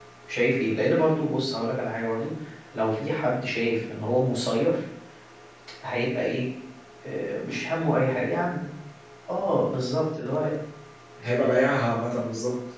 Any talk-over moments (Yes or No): No